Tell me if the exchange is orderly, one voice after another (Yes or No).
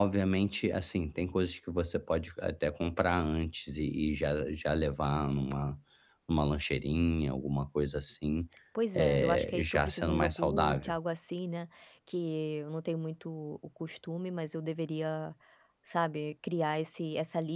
No